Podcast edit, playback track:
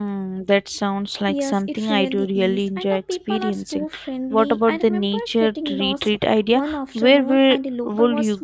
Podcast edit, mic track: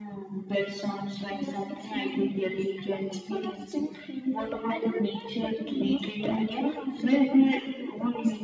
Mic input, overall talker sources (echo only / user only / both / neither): echo only